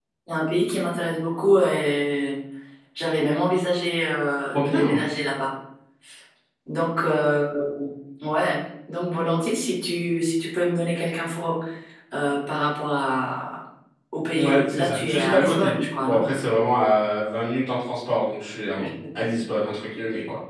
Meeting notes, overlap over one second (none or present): present